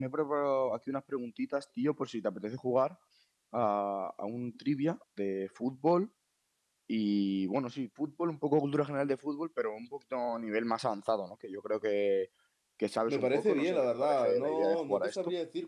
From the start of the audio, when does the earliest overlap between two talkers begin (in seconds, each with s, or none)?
13.1 s